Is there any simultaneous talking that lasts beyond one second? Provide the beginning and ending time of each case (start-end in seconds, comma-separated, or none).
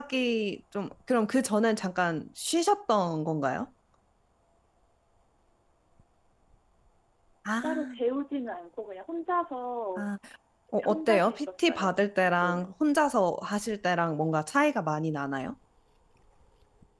10.9-12.7